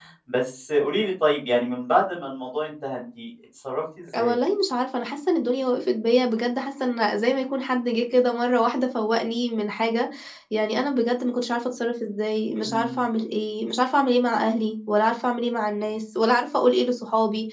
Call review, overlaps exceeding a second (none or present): none